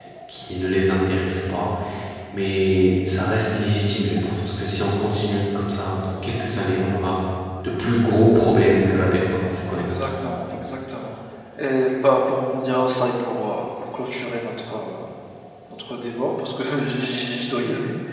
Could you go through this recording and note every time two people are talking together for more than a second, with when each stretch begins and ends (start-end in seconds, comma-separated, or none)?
none